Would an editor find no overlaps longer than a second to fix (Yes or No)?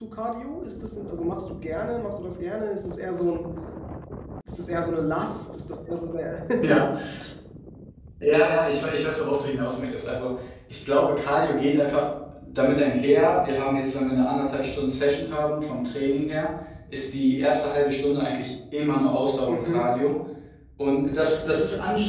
Yes